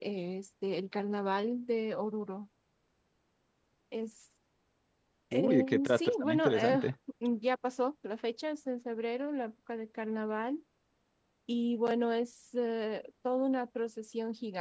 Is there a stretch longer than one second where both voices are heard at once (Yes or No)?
Yes